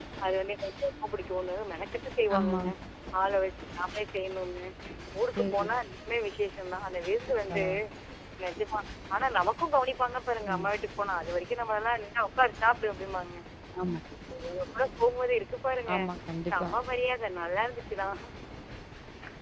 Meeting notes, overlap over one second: none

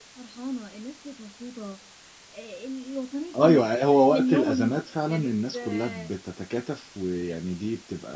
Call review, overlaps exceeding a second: present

